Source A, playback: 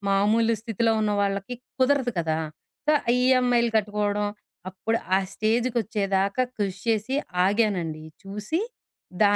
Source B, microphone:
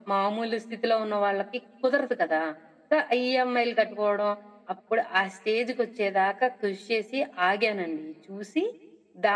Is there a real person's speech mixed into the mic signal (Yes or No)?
No